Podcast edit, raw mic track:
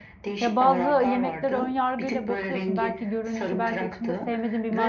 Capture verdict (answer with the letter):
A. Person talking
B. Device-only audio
A